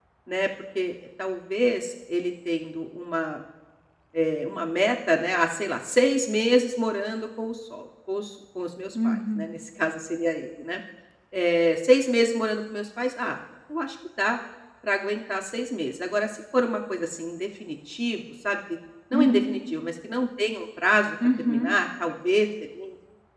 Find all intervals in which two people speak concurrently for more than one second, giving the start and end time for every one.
none

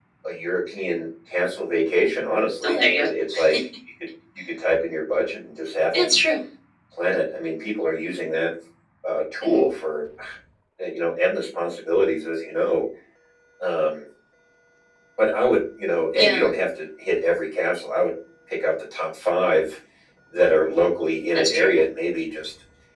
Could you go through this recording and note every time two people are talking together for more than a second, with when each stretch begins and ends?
none

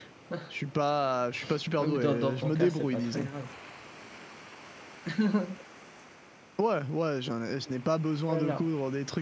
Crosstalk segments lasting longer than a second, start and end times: 1.8-3.3

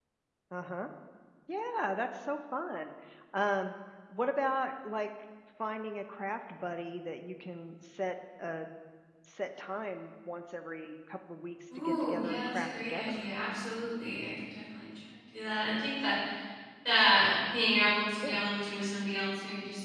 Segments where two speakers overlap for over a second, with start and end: 11.8-13.2

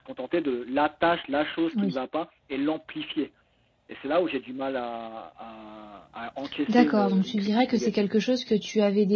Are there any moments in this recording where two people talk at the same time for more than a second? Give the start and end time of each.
6.7-8.1

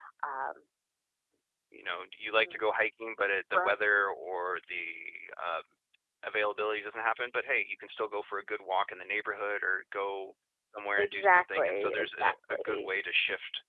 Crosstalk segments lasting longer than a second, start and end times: 11.0-12.9

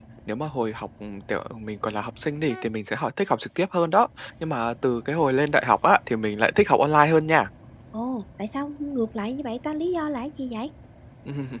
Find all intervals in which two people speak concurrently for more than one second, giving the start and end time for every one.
none

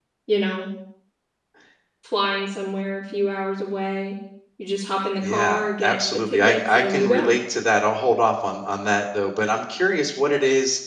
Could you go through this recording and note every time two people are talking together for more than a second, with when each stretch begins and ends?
5.2-7.3

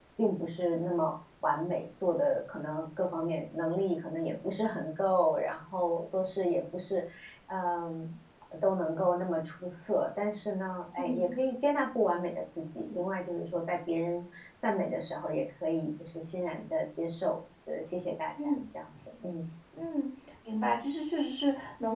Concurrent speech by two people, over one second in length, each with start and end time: none

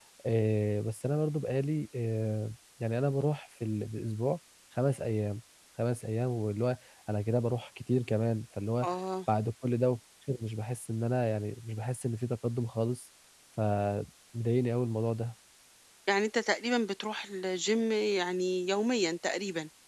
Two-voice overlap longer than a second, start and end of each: none

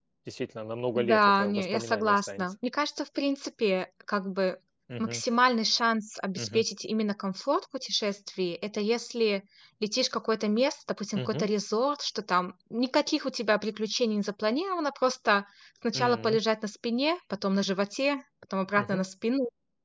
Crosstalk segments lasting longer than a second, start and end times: 0.9-2.5

